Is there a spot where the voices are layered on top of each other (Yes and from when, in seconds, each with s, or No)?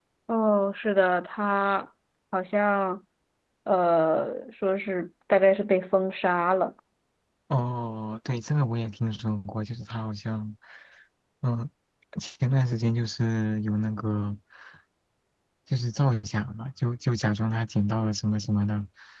No